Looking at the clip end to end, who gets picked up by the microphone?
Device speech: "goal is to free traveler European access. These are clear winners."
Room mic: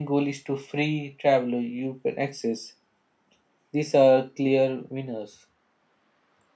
echo only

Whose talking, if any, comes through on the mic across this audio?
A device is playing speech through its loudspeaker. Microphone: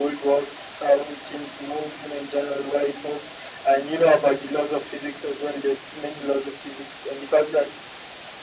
echo only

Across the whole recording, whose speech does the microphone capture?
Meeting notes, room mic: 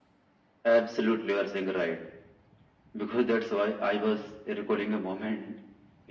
echo only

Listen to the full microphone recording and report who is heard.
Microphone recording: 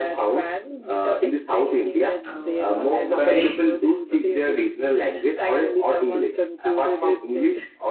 both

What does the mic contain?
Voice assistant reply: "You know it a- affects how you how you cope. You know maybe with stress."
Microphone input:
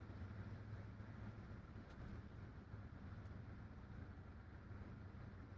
neither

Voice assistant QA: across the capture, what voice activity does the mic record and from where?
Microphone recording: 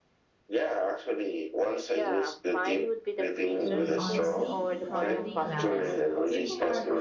both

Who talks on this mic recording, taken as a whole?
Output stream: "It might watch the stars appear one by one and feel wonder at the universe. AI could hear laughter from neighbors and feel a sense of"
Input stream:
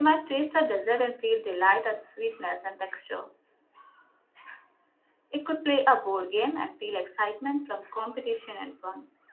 user only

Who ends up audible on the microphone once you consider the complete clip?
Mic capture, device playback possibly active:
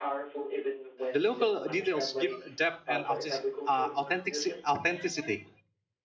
both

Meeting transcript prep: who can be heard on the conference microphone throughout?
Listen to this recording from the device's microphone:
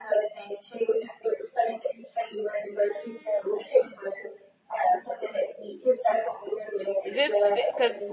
both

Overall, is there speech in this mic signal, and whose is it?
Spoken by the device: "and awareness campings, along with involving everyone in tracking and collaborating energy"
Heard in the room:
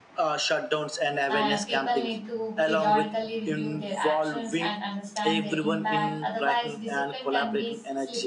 both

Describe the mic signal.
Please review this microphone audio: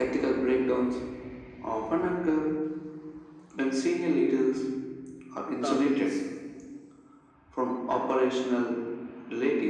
both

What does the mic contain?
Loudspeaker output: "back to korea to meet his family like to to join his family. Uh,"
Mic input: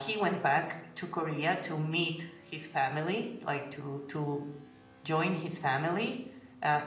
echo only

